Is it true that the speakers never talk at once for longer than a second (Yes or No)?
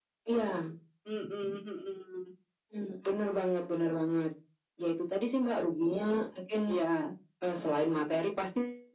Yes